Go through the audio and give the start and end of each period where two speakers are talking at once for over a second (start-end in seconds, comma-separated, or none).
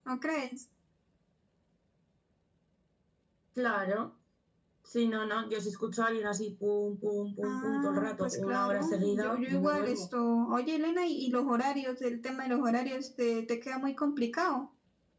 7.4-10.1